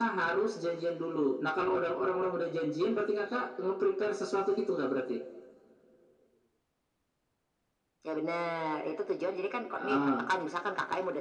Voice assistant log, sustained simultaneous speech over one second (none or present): none